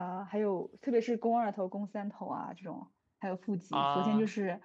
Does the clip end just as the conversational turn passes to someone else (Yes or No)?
No